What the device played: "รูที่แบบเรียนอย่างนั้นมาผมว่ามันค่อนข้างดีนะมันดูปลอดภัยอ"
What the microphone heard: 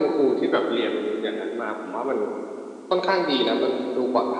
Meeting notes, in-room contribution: none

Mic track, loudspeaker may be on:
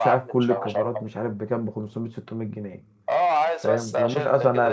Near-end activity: present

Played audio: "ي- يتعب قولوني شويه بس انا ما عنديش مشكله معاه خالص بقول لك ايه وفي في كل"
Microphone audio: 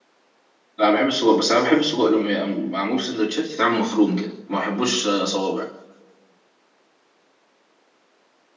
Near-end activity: present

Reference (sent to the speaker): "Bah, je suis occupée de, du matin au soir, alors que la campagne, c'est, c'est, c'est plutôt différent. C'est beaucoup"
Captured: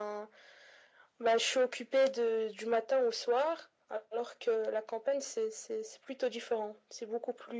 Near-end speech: none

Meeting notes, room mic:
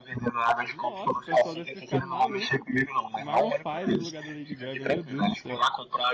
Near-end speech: present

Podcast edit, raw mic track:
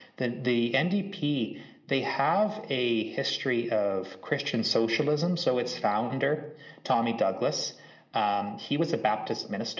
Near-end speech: none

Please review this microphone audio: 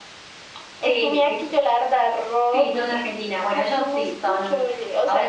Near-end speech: none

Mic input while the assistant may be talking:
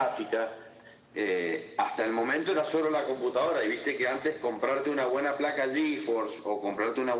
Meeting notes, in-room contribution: none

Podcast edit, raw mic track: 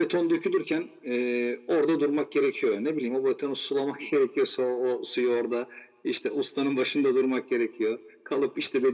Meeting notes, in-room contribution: none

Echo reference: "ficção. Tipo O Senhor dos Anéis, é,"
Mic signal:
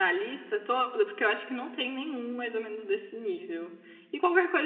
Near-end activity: present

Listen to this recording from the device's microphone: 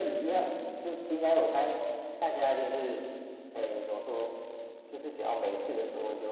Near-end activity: none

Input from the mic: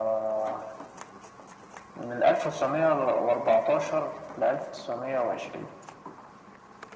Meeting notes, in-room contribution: none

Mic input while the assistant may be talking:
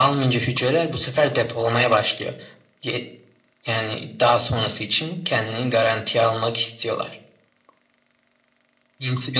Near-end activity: none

